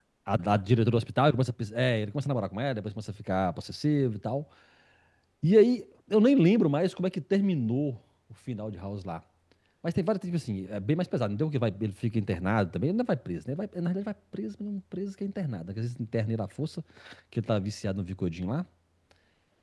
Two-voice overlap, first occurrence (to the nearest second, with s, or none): none